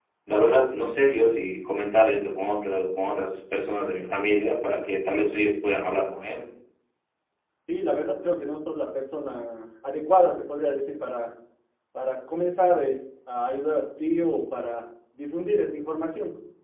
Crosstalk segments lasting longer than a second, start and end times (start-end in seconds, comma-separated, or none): none